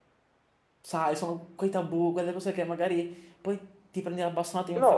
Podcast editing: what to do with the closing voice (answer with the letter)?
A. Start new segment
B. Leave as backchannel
A